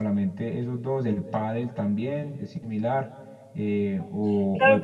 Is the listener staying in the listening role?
No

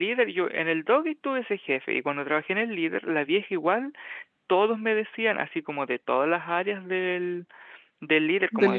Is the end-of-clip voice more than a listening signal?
No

